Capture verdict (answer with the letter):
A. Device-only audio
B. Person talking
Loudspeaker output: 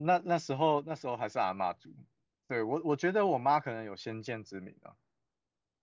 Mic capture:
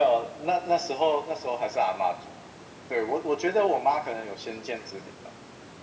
A